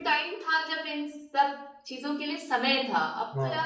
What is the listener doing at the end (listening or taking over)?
listening